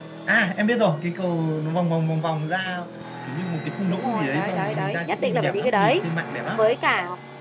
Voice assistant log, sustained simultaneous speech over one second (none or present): present